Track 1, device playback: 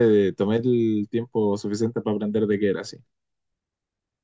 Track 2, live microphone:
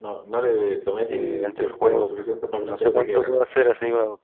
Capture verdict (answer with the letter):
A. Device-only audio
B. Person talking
B